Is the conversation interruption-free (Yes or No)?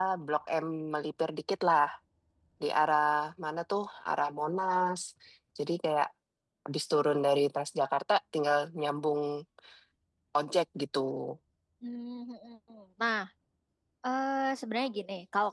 Yes